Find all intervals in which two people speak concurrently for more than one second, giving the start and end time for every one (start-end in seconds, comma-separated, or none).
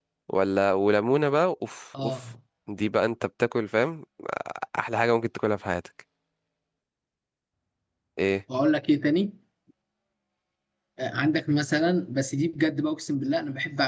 none